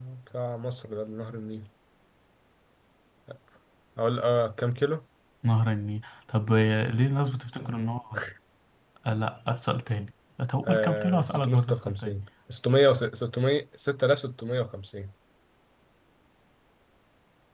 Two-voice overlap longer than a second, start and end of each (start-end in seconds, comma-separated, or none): 10.6-12.2